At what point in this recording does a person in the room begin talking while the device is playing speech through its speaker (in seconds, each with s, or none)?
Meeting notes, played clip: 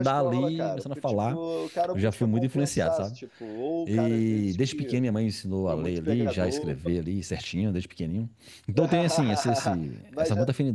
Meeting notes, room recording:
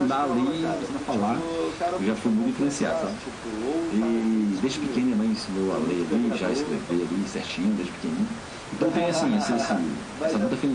none